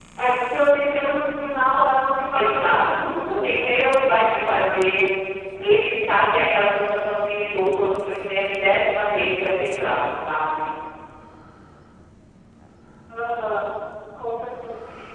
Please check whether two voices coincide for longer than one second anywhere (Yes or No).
Yes